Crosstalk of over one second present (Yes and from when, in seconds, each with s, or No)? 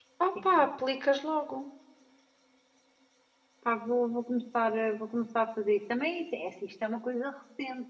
No